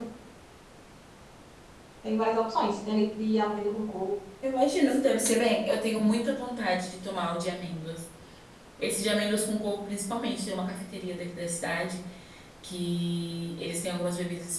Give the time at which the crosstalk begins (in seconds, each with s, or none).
none